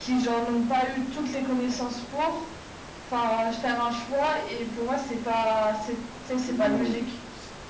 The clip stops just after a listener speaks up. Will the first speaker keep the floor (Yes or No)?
No